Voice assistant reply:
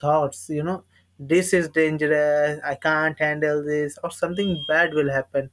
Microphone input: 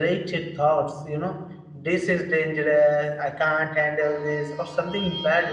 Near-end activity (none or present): none